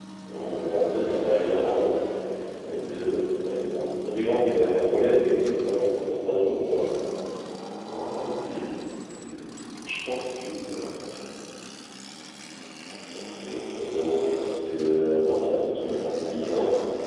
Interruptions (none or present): none